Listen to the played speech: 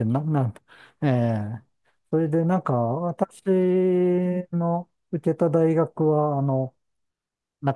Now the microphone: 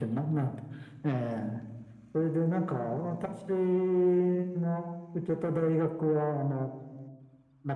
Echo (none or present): present